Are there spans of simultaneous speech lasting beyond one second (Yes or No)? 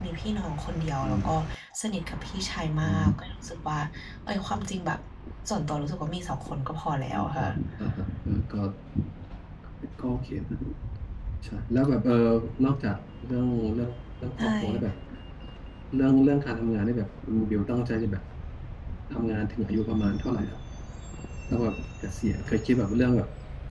No